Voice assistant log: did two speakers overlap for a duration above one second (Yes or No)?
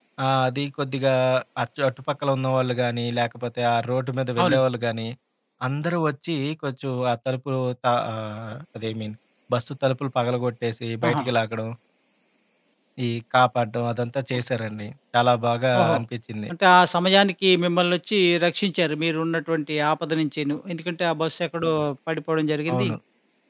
No